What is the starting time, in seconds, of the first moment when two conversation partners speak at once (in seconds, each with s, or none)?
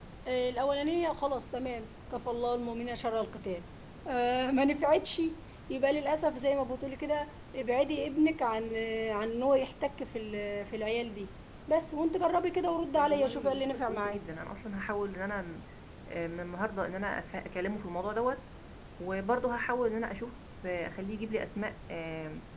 13.0 s